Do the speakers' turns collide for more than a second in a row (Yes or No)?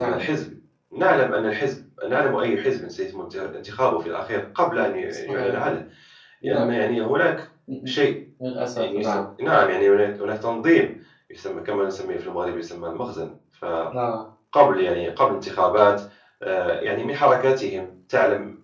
No